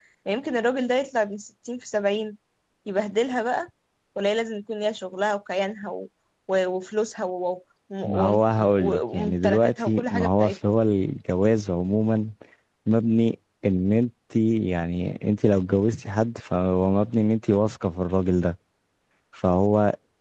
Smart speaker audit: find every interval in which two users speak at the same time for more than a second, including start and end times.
8.0-10.6

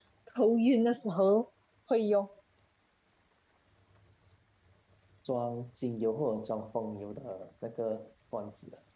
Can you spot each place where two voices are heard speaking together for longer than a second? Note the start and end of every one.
none

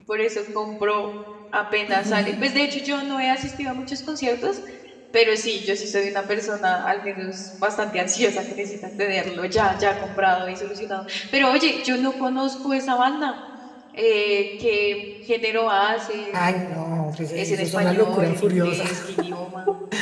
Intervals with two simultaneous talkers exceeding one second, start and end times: 17.4-18.8

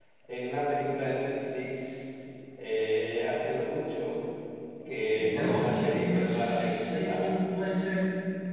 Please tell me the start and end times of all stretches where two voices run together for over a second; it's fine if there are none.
5.2-7.2

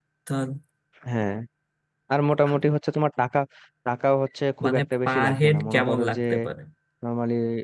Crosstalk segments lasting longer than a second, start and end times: 4.6-6.2

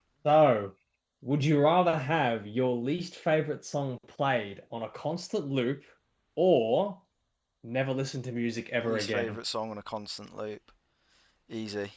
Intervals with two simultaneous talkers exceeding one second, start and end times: none

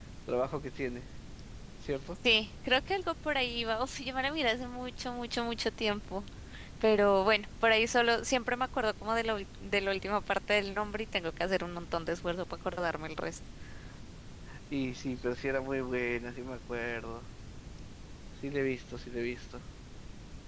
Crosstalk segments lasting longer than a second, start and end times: none

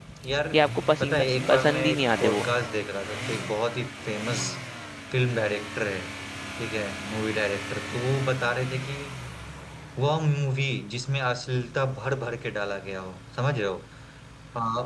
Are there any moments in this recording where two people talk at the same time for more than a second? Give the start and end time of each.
1.0-2.5

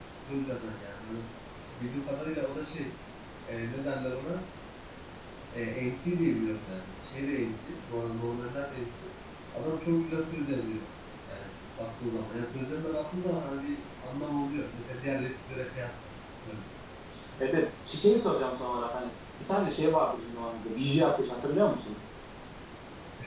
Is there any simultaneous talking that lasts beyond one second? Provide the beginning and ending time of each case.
none

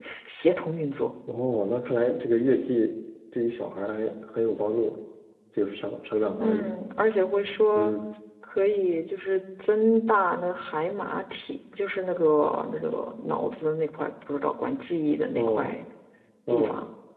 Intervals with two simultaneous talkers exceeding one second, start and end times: none

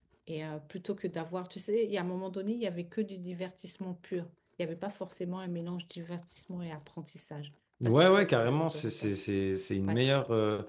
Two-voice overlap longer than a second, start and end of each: 7.8-9.2

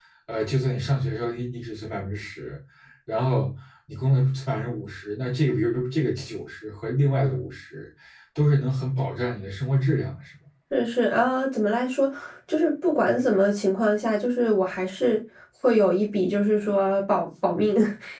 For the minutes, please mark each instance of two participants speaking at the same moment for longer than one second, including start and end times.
none

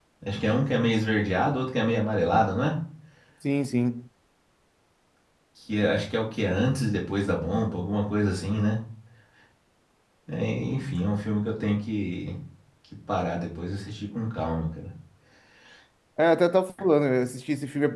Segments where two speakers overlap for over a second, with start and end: none

